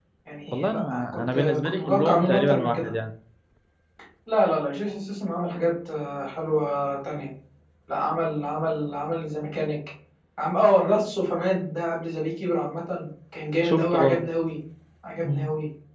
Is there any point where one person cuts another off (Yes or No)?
Yes